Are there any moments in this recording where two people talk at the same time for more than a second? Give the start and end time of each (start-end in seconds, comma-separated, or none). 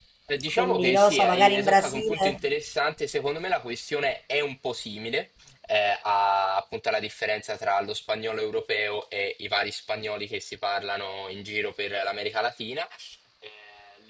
0.6-2.4